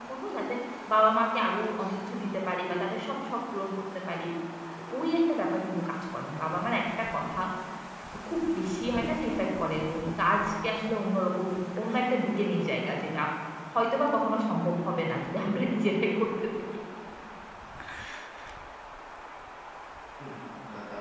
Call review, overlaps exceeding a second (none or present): none